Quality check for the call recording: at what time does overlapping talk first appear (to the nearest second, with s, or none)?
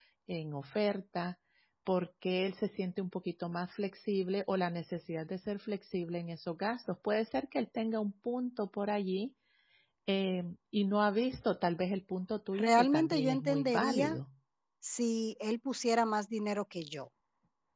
13 s